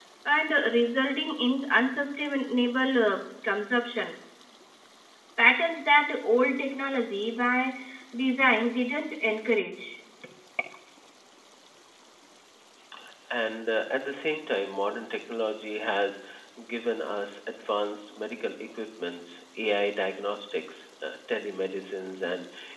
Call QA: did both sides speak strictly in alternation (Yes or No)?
Yes